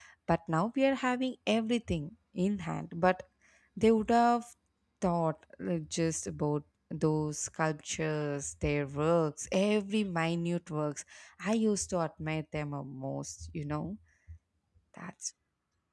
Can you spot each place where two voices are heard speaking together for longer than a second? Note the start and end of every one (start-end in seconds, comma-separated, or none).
none